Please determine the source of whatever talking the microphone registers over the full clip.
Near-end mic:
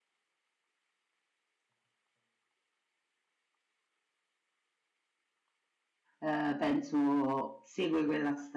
user only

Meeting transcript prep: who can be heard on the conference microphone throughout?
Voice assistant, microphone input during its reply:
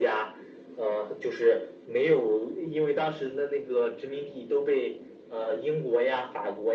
echo only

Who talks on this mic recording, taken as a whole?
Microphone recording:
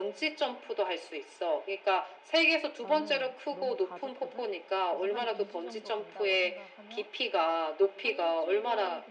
both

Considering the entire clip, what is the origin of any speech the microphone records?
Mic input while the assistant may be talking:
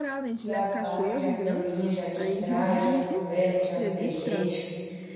both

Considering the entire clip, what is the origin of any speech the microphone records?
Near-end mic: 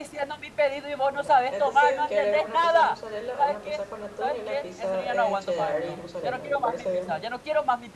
both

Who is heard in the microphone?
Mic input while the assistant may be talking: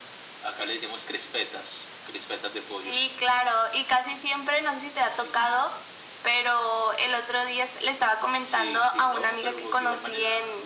echo only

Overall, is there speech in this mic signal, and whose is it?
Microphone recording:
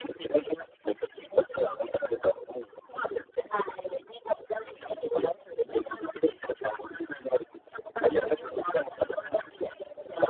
echo only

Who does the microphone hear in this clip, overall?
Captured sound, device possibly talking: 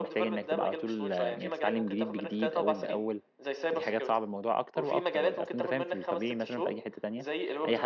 both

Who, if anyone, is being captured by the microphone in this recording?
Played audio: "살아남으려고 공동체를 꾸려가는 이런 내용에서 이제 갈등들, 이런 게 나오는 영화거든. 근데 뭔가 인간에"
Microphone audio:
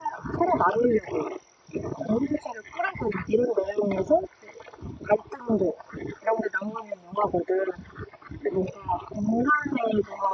echo only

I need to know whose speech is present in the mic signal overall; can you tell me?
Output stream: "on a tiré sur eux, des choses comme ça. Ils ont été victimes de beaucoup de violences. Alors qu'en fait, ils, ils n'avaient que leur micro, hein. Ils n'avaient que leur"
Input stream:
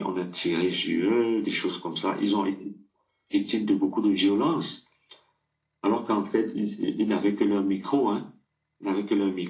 echo only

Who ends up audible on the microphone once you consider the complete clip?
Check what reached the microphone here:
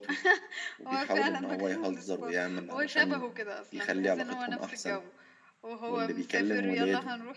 echo only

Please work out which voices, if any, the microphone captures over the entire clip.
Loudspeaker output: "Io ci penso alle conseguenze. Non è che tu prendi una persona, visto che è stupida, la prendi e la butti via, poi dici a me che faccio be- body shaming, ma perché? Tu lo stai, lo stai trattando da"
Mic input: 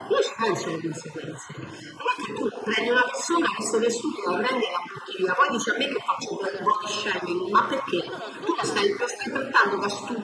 both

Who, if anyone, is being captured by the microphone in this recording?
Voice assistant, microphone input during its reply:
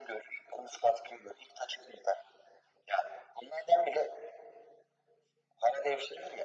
echo only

